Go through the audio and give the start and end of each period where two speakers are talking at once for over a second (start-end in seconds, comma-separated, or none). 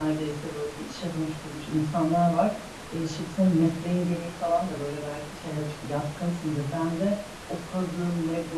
none